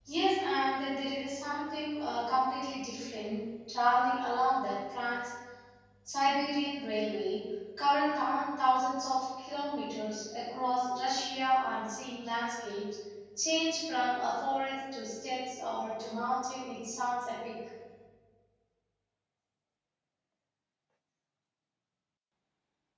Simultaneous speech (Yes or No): No